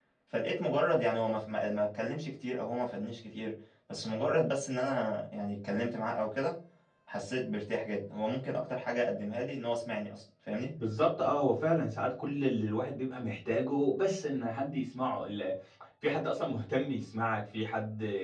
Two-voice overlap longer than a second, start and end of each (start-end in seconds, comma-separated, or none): none